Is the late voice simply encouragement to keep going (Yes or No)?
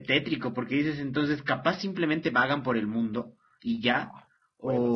No